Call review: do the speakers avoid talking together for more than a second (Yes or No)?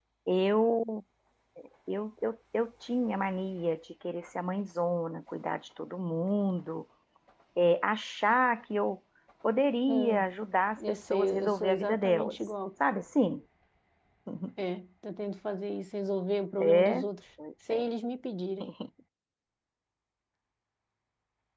No